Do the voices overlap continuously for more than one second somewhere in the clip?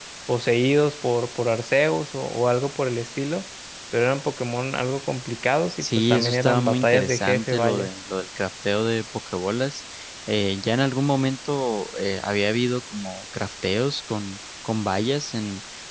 Yes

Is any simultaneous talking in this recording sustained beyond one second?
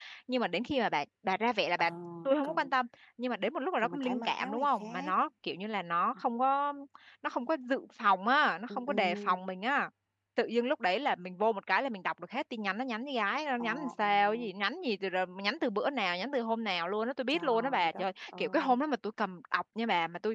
Yes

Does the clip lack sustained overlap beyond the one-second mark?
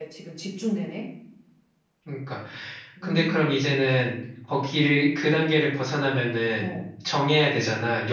Yes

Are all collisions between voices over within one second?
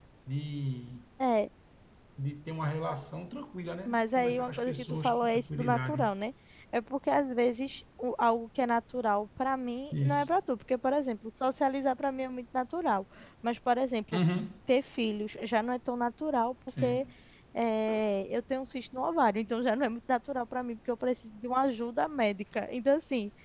No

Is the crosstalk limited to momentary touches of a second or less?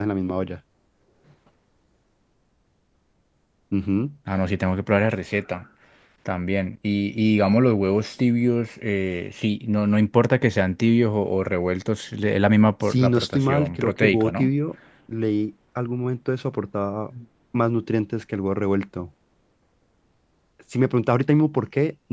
No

